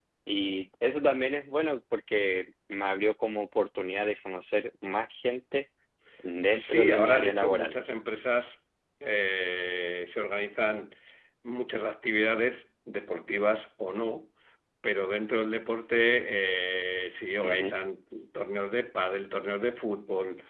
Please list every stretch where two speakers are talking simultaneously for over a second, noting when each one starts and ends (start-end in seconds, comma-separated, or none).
6.5-7.7